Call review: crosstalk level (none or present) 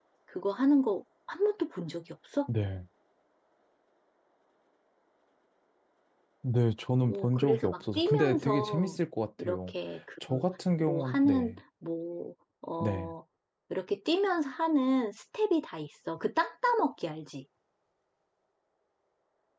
present